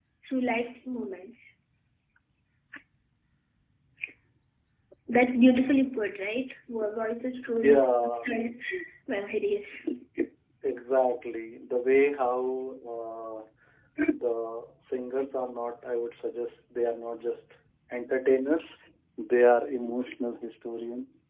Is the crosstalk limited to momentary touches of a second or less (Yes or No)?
Yes